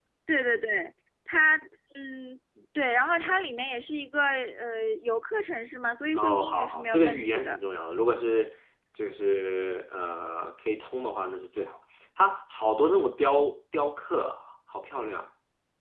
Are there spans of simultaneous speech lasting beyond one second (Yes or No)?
Yes